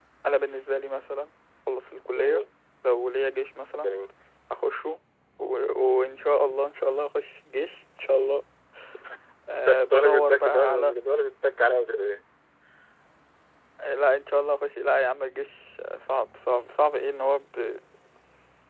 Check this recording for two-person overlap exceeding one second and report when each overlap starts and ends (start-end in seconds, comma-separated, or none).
9.6-10.9